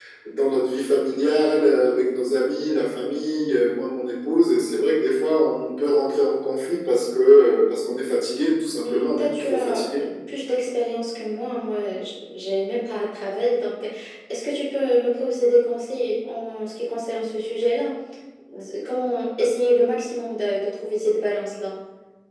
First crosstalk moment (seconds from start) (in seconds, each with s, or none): 8.8 s